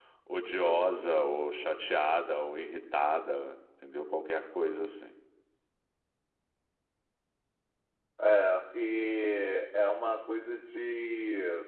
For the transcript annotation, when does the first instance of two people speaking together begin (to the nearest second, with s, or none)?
none